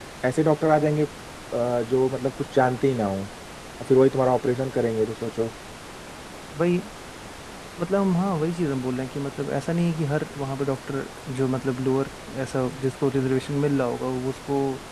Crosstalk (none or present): none